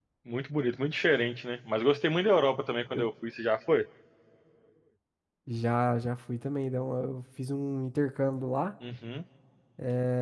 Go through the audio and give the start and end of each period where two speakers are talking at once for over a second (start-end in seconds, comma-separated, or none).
none